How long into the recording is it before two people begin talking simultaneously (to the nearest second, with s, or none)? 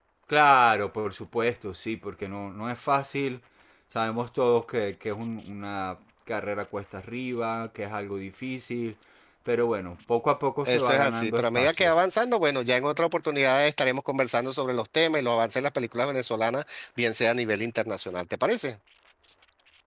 11 s